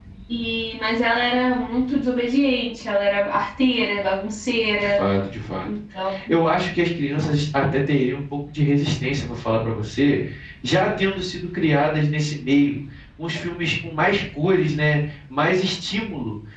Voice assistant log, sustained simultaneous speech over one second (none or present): none